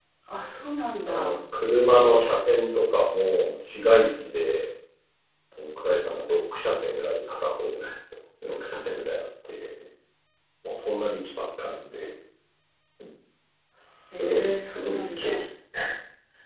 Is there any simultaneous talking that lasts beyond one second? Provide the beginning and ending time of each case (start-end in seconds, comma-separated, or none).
14.1-15.4